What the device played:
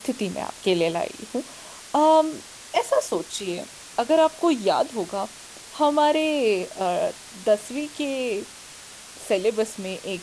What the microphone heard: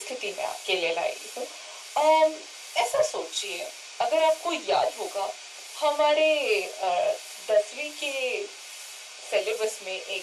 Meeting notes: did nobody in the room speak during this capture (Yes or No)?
Yes